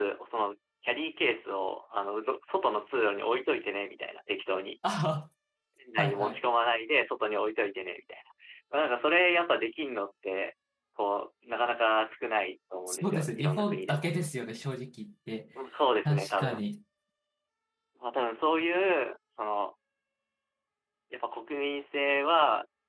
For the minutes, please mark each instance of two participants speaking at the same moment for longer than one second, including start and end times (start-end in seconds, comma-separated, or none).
12.9-14.1